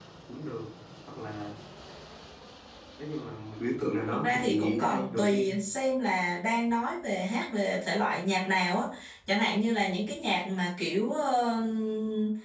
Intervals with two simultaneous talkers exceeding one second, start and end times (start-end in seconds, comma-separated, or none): 4.1-5.4